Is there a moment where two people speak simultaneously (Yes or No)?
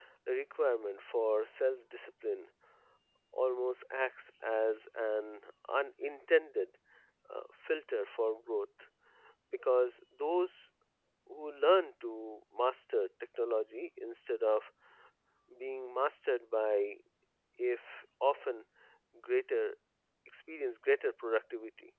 No